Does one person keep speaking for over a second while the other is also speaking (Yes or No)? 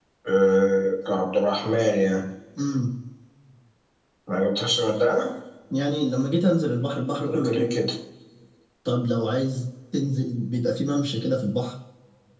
No